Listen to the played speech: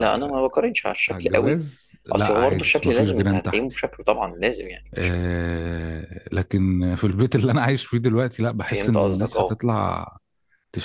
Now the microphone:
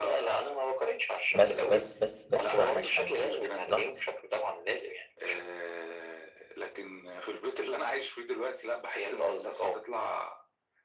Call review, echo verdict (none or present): present